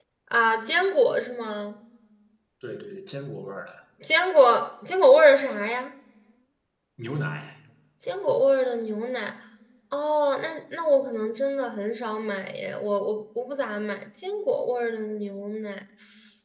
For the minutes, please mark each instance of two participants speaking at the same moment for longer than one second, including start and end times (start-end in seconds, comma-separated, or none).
none